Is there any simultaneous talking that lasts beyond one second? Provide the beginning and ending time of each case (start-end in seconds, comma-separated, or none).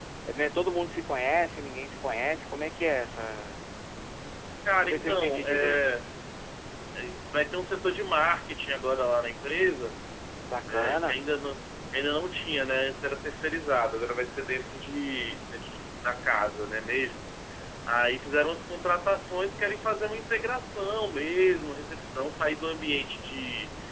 4.7-6.0